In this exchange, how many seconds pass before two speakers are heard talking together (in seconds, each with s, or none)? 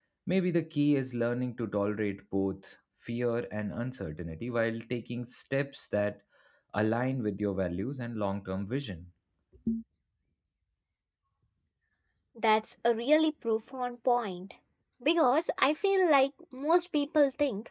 none